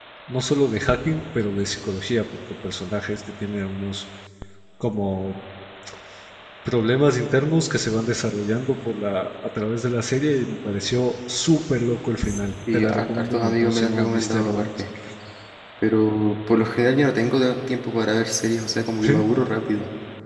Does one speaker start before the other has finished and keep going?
Yes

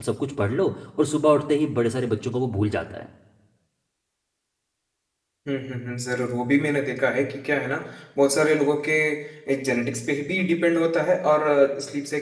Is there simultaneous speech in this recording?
No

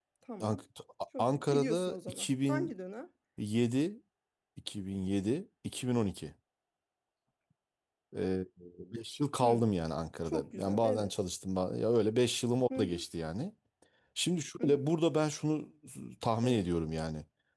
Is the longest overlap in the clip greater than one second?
Yes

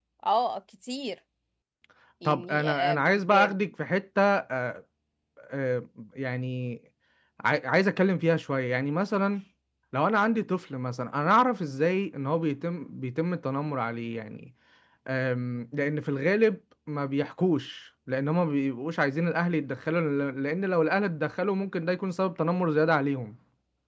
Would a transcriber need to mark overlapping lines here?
Yes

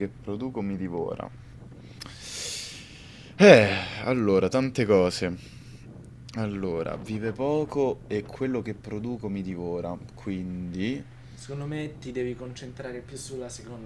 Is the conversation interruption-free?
Yes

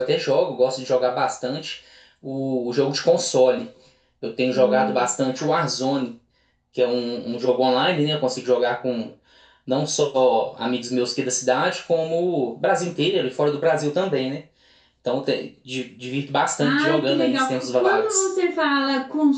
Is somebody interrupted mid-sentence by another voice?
Yes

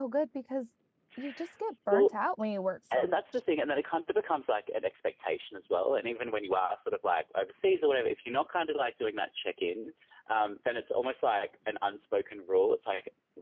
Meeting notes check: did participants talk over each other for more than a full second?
No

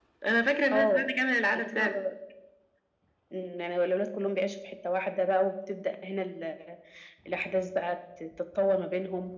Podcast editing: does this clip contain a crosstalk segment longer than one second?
No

